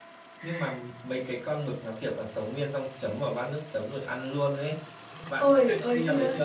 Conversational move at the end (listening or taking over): taking over